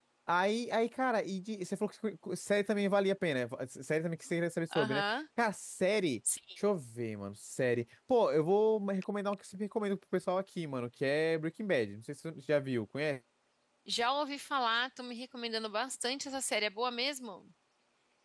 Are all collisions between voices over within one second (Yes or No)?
Yes